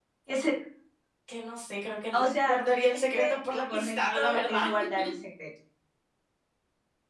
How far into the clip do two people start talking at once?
2 s

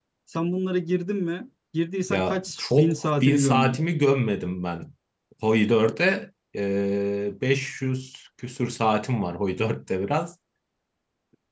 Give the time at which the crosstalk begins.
2 s

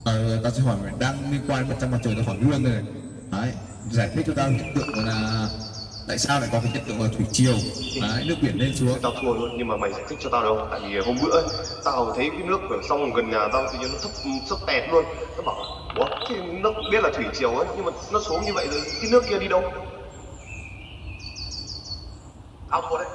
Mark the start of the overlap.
none

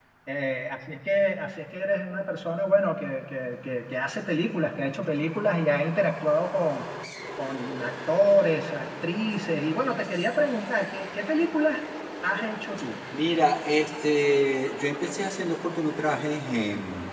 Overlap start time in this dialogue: none

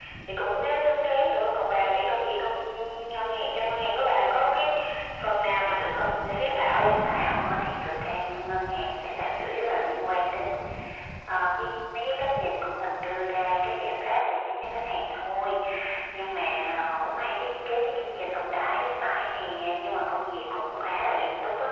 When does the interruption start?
6 s

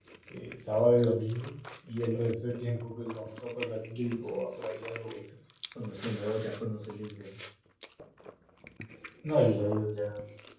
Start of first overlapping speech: none

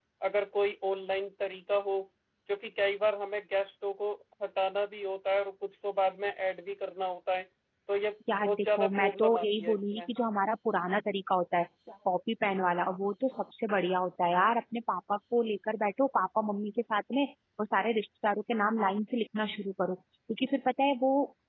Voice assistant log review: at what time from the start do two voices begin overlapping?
8 s

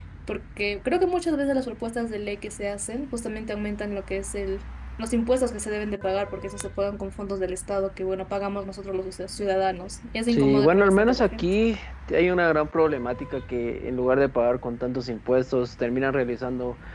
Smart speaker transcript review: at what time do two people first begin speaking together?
10 s

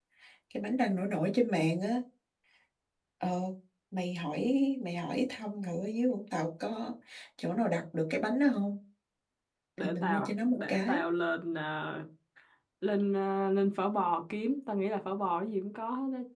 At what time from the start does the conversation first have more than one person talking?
10 s

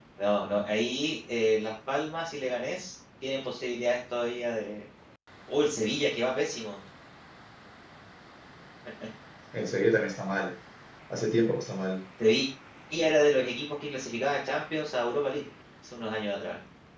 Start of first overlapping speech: none

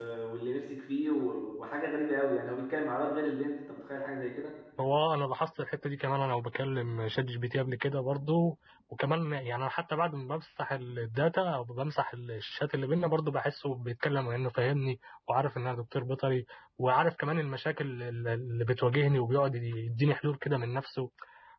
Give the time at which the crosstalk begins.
none

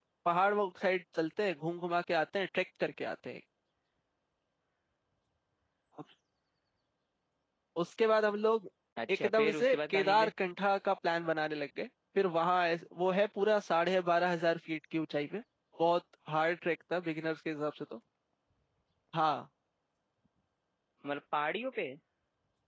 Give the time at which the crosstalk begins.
9 s

